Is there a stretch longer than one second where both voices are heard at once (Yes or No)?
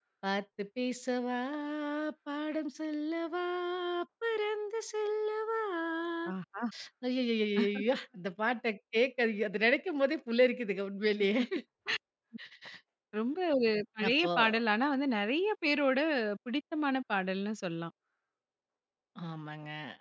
No